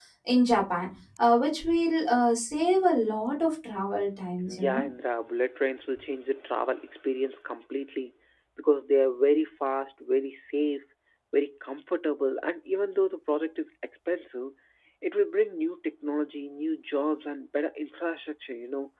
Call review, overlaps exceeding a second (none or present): none